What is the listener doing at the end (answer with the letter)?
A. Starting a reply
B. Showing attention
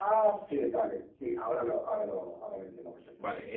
A